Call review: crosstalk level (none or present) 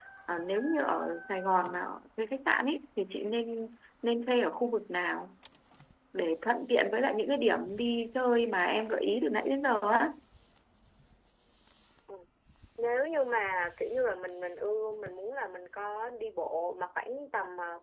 none